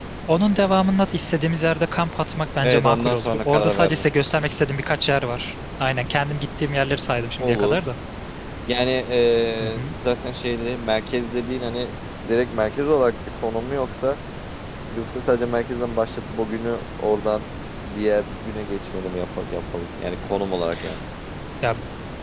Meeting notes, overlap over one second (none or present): present